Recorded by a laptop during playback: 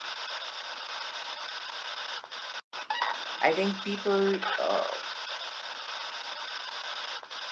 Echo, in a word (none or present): none